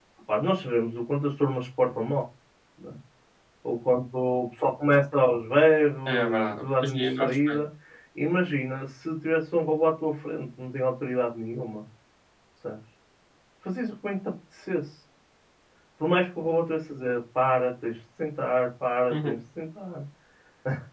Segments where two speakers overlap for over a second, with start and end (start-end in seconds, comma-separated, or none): 6.1-7.6